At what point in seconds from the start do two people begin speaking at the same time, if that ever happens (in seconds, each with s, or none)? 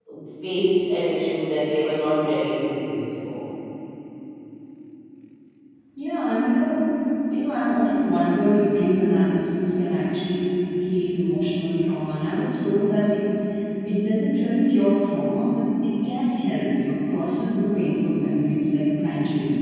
none